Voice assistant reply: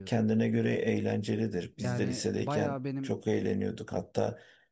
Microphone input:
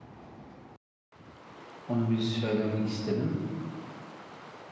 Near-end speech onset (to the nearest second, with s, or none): 2 s